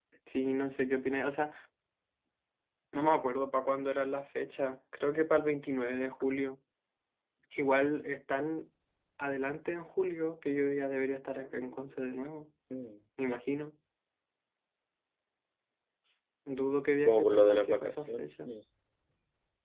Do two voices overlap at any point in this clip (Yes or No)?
Yes